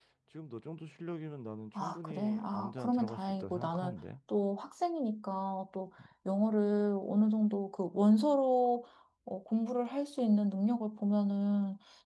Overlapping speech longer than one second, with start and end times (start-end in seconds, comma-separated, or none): 1.8-3.9